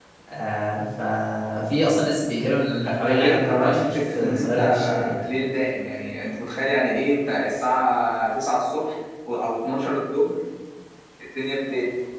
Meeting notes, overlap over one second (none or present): present